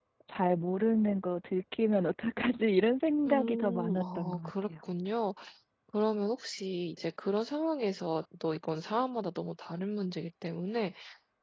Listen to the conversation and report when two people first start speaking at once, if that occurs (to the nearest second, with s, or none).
3 s